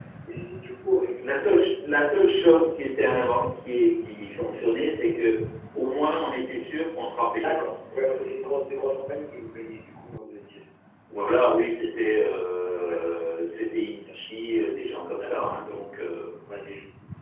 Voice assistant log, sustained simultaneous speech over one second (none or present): none